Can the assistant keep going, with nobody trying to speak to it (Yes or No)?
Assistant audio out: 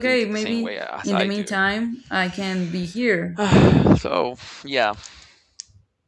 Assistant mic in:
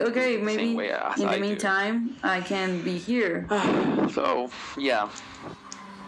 Yes